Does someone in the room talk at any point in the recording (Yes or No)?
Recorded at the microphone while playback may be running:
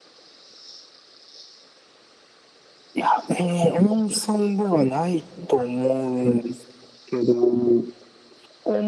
No